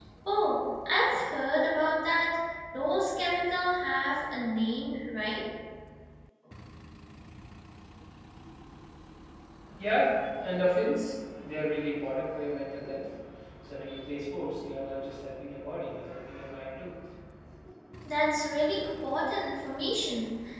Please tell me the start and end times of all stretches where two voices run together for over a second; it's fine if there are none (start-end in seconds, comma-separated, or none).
none